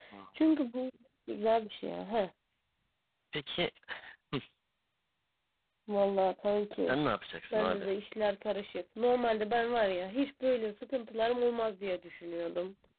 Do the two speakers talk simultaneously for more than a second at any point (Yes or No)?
No